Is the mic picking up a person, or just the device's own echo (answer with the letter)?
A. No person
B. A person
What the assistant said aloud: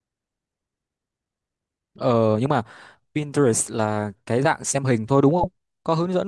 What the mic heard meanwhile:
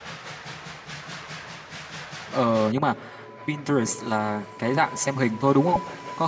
A